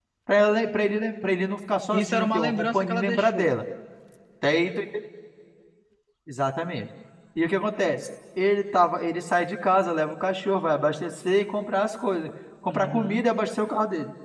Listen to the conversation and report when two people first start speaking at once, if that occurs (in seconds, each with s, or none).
1.9 s